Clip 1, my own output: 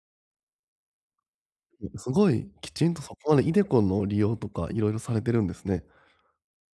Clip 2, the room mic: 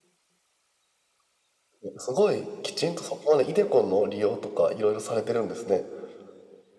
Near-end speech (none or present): none